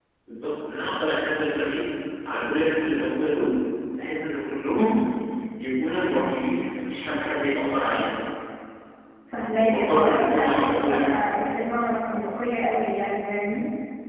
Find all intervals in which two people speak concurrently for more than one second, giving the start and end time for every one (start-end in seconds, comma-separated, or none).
9.6-10.9